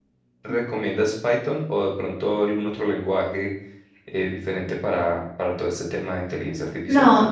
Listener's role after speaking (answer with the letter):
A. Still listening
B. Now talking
B